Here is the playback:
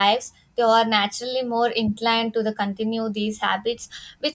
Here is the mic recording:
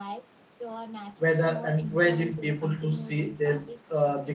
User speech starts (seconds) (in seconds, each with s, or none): 1.2 s